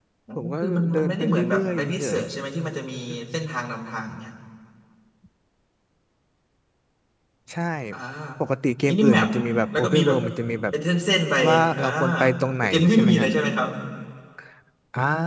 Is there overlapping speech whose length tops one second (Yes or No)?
Yes